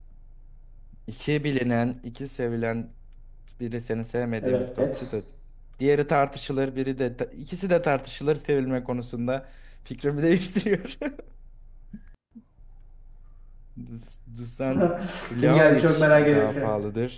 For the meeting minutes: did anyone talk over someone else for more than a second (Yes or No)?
Yes